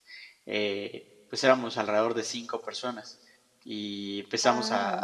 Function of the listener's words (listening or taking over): listening